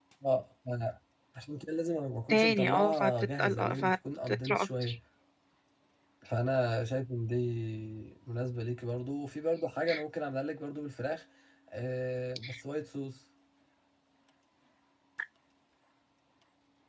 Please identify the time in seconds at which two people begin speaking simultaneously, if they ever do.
2 s

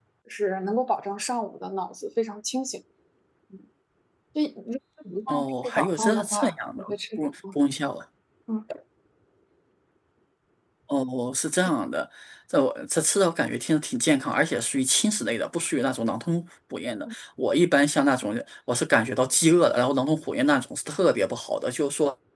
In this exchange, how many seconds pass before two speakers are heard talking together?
5 s

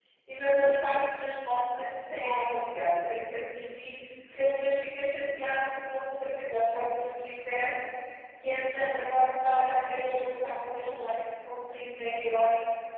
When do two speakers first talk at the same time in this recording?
none

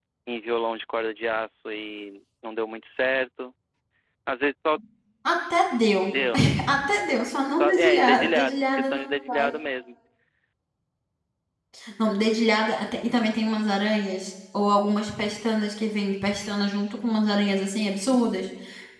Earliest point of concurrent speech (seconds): 8 s

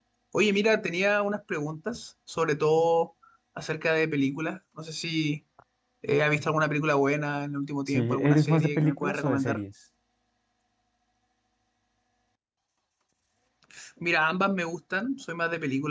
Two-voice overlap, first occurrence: 8 s

